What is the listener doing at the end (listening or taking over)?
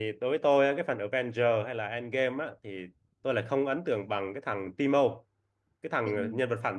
listening